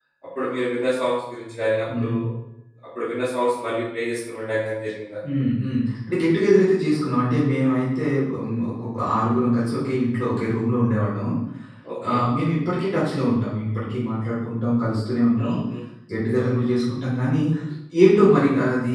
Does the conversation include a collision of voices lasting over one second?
No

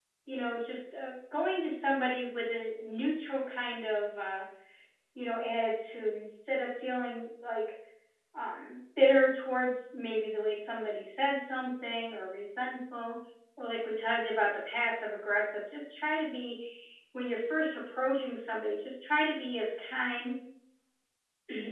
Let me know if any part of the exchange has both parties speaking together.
No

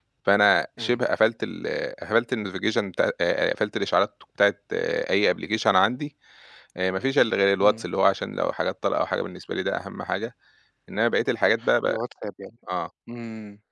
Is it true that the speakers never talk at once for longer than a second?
Yes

